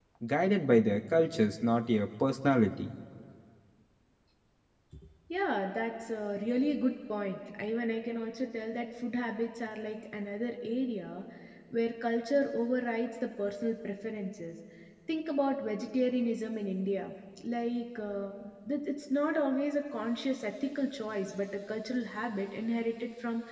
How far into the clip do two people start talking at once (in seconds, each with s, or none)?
none